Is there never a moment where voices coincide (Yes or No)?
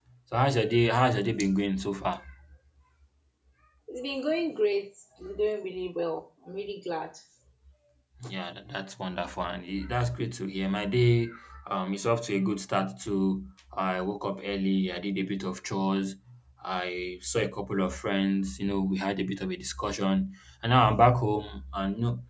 Yes